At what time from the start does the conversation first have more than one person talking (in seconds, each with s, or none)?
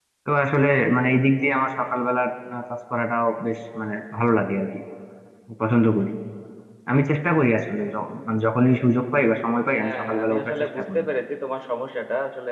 9.8 s